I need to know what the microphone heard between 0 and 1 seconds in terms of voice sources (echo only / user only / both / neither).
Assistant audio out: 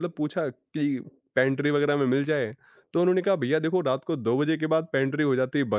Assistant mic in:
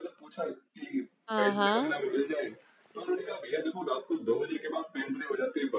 echo only